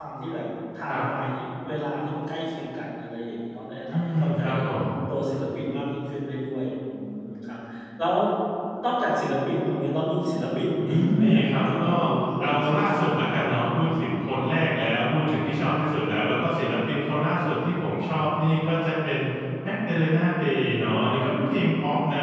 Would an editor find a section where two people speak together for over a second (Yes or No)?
Yes